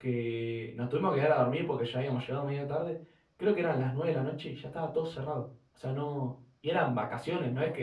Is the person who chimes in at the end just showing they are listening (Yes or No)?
Yes